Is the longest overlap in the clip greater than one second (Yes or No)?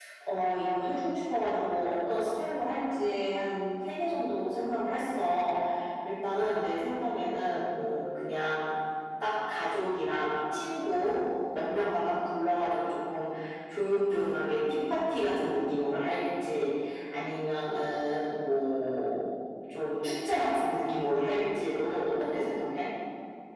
No